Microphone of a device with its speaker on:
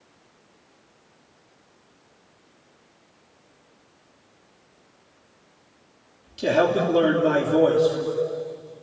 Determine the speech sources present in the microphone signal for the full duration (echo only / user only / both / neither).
user only